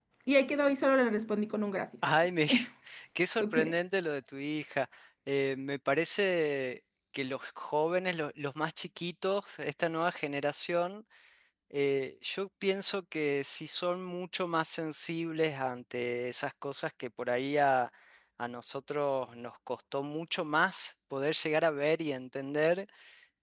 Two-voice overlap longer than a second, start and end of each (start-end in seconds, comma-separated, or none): none